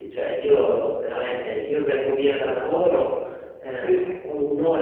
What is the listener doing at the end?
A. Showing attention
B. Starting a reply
A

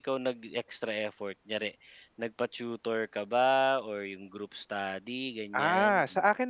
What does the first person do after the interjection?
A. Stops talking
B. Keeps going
A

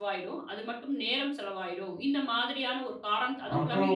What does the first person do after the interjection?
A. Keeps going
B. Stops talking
B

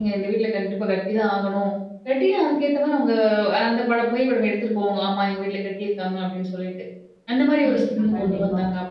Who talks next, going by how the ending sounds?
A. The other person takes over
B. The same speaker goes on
B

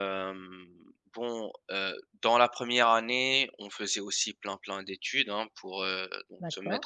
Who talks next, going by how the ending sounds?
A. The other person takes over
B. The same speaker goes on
B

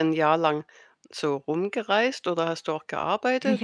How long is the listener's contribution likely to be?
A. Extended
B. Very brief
A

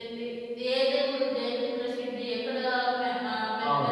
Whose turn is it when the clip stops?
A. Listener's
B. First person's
B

